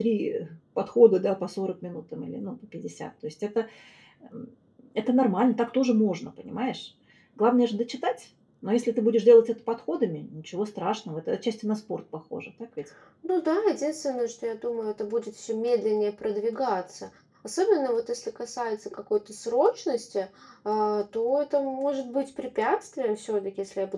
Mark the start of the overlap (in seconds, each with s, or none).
none